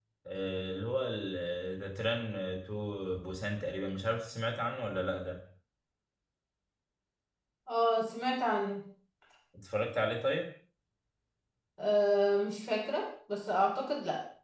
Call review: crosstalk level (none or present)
none